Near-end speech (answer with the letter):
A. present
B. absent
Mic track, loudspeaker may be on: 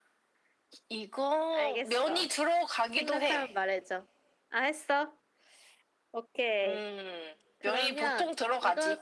A